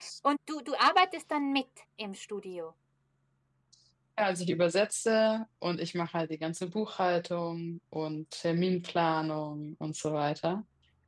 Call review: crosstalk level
none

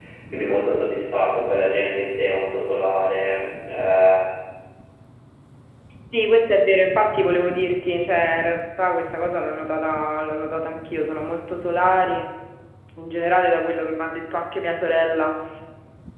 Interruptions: none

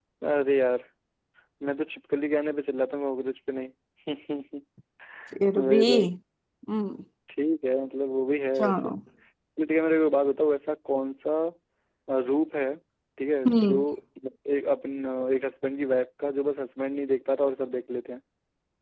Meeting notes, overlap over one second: none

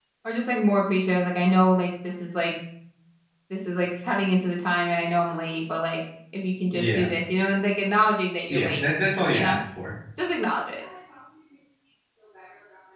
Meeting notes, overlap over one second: none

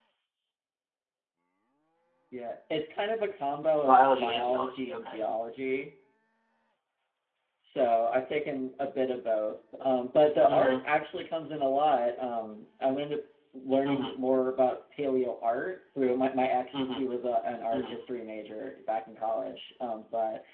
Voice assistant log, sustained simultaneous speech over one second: present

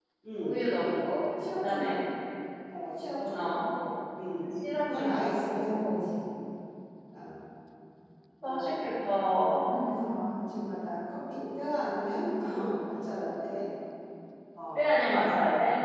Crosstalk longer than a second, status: present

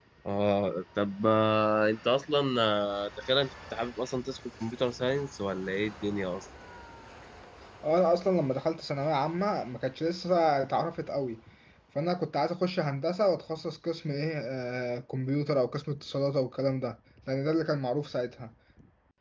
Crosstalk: none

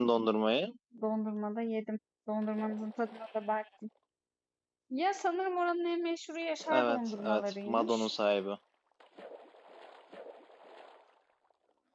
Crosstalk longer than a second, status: present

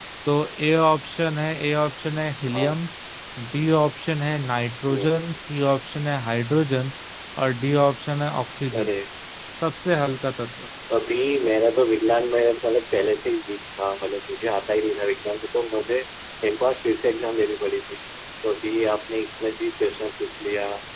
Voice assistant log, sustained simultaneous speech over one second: none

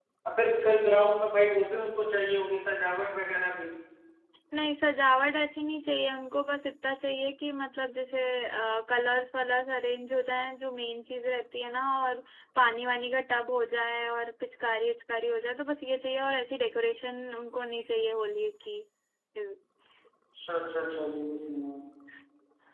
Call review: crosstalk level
none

